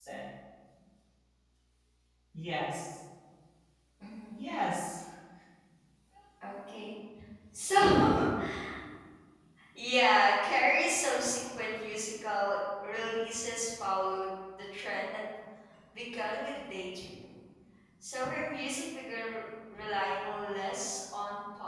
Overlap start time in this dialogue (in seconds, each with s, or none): none